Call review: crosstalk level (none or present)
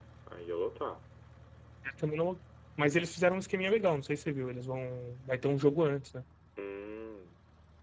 none